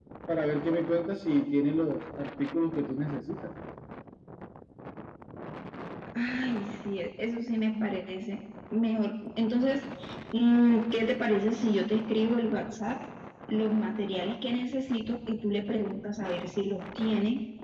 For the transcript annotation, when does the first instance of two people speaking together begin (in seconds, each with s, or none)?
none